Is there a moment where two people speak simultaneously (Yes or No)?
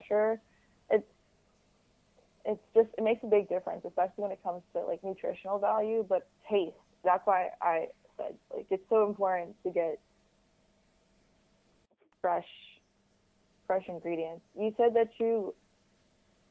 No